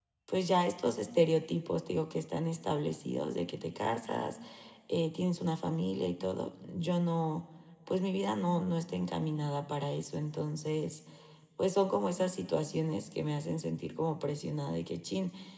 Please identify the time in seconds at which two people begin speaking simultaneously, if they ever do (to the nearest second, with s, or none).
none